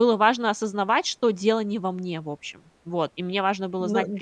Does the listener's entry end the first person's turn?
No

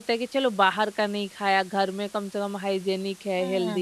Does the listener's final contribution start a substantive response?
Yes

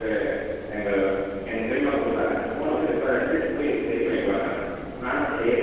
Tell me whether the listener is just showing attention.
Yes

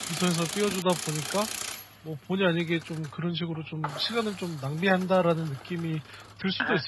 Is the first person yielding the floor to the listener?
Yes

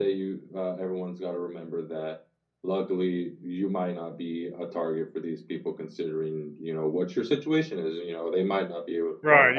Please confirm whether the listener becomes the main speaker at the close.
Yes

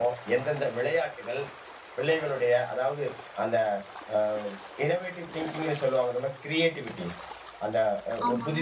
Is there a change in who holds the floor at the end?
No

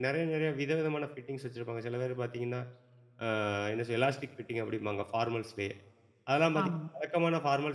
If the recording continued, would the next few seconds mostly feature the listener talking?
No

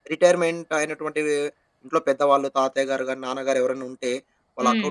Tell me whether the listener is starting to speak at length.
No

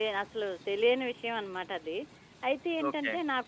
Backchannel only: Yes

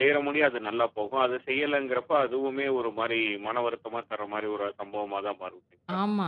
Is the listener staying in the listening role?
No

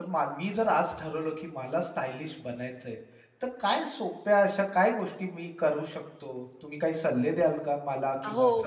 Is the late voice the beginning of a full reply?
Yes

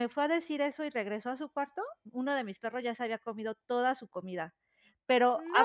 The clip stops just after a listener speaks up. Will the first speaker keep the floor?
Yes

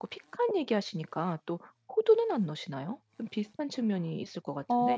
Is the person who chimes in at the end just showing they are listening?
No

